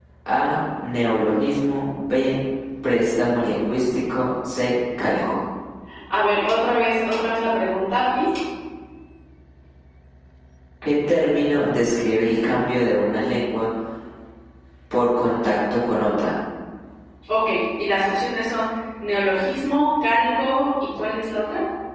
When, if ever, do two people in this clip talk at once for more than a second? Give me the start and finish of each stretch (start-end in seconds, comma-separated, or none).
none